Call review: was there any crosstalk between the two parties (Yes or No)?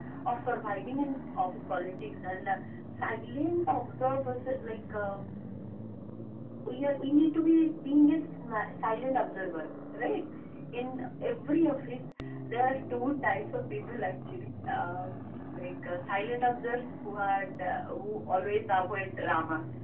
No